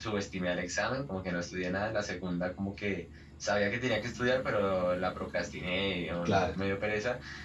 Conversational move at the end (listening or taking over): listening